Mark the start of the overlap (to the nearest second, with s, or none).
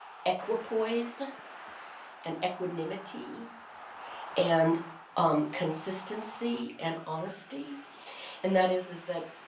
none